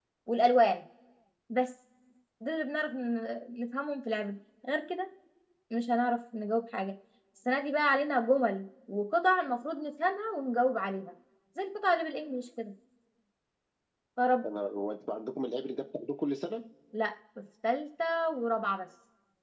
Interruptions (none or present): none